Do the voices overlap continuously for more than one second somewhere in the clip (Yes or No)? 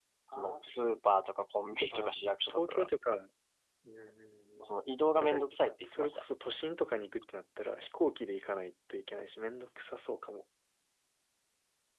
No